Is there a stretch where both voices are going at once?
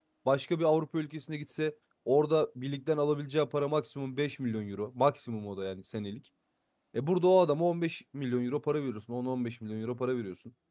No

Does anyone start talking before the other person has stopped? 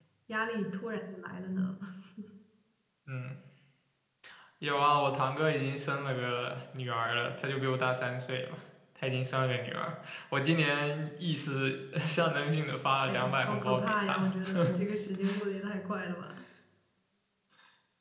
Yes, from 13.1 s

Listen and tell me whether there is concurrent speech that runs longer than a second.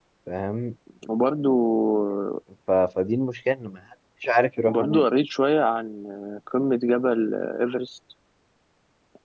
No

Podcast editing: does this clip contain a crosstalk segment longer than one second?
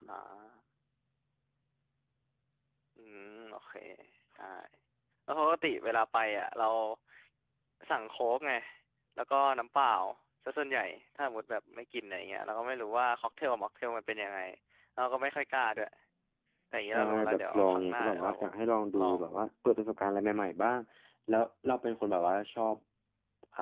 Yes, from 16.9 s

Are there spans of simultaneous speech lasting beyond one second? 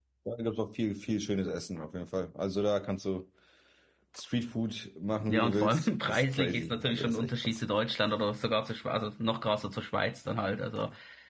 Yes, from 5.2 s

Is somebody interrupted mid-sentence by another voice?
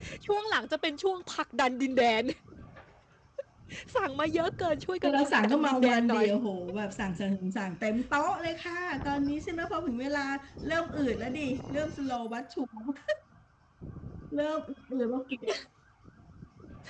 Yes, from 5.0 s

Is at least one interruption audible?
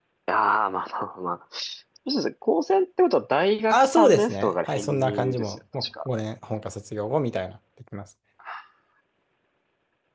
Yes, from 3.7 s

